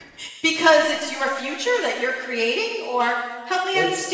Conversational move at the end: taking over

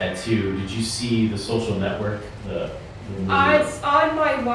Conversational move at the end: taking over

